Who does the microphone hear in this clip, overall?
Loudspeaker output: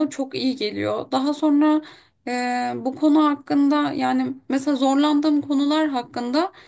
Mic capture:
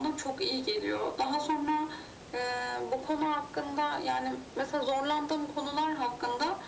echo only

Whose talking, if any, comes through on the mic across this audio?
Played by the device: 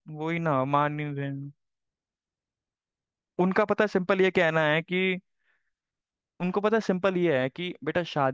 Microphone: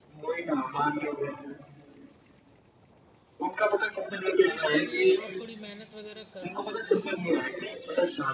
both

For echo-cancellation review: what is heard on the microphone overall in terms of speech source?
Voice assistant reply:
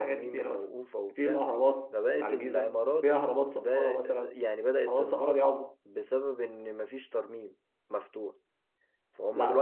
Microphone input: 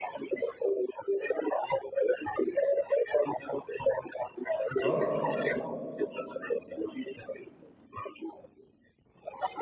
both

